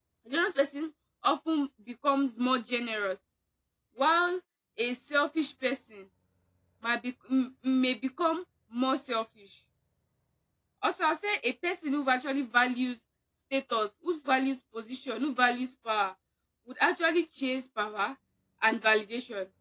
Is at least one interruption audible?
No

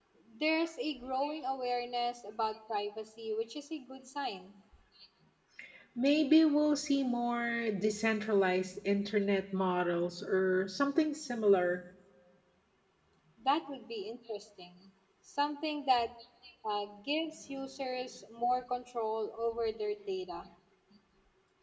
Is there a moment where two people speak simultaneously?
No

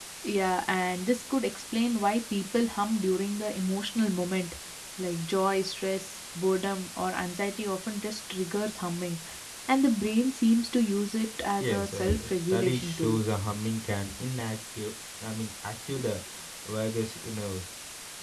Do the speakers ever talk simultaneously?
Yes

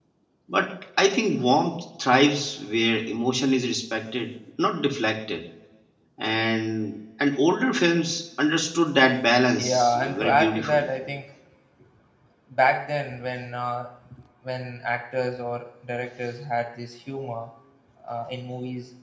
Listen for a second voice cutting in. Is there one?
Yes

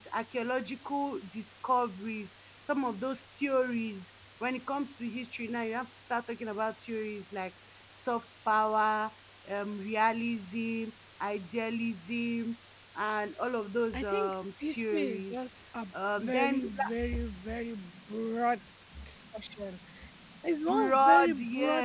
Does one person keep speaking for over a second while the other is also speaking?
Yes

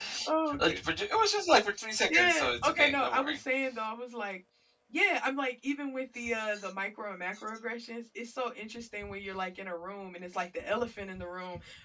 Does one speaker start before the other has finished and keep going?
Yes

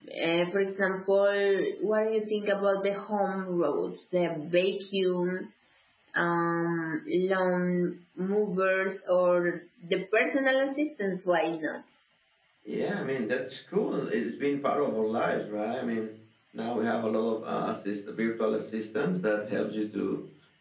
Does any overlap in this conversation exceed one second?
No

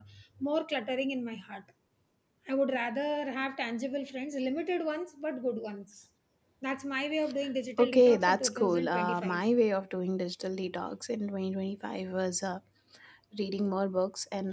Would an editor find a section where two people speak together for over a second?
Yes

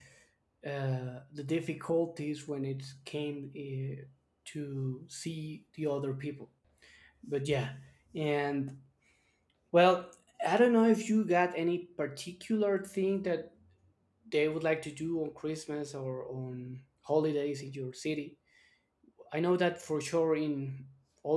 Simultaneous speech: No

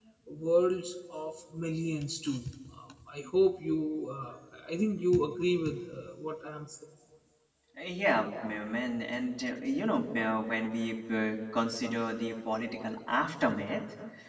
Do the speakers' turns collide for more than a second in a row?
No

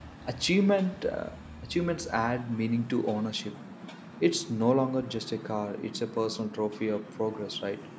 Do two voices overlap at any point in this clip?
No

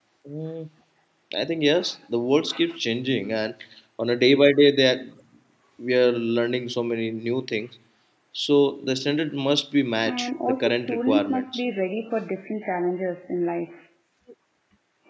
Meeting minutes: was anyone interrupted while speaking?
Yes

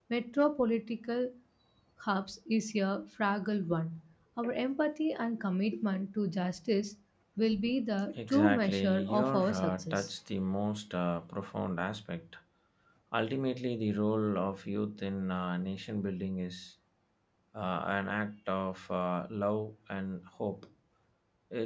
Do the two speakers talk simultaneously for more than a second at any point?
Yes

